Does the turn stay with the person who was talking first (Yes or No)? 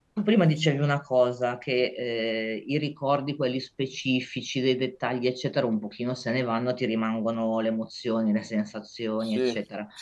Yes